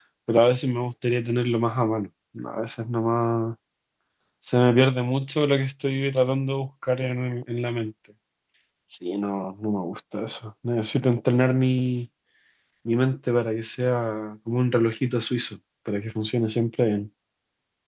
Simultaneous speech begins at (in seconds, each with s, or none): none